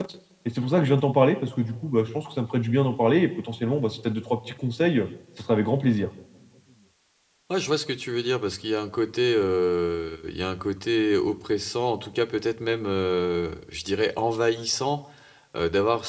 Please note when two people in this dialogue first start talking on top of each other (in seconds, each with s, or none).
none